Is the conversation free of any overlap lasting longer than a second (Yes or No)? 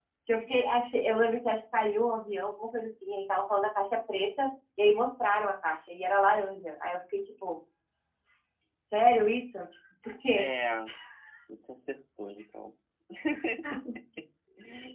Yes